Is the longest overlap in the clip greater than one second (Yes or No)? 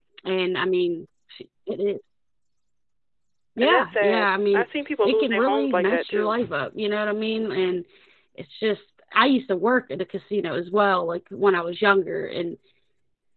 Yes